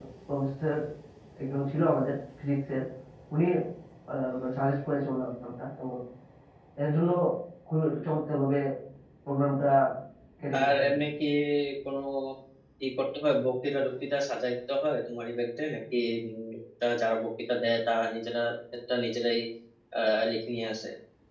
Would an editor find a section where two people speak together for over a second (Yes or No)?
No